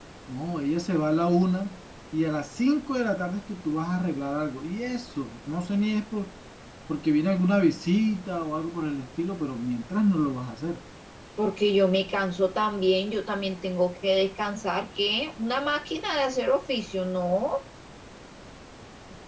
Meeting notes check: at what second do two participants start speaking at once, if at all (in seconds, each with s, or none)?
none